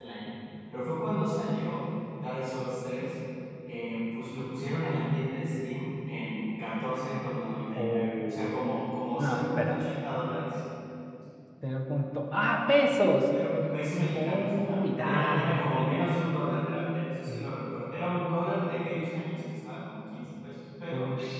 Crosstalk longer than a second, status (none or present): present